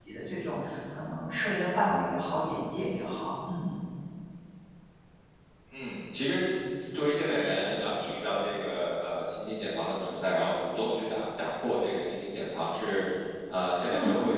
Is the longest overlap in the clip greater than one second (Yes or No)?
No